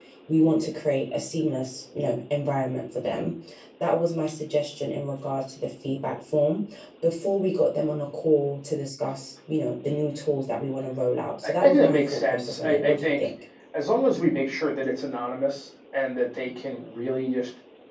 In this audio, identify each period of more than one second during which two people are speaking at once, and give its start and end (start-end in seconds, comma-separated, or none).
11.4-13.3